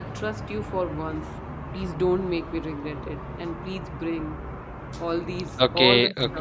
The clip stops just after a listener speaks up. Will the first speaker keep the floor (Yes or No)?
No